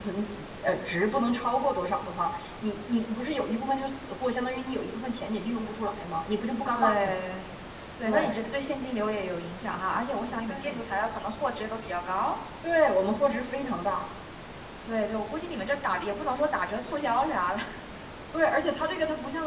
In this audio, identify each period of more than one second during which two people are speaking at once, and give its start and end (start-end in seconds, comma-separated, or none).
none